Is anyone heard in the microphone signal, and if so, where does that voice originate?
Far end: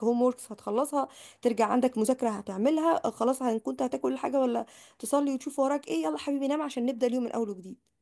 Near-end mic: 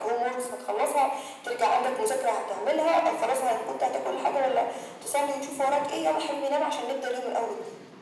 echo only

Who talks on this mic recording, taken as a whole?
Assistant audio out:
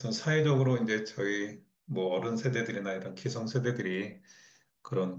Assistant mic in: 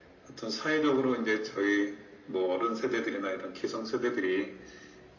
echo only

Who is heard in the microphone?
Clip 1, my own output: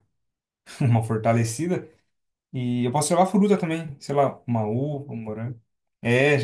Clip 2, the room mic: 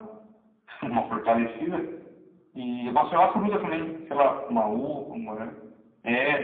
echo only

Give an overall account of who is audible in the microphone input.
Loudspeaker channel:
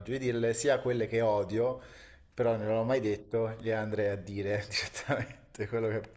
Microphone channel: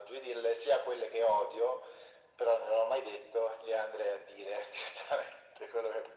echo only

